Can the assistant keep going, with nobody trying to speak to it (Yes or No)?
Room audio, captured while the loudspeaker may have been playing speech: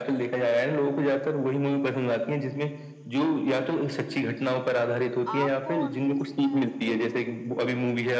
No